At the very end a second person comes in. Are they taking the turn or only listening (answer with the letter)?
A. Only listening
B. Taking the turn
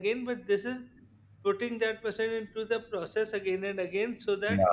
A